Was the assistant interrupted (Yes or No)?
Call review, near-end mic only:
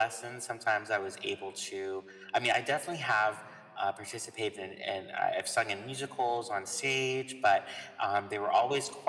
No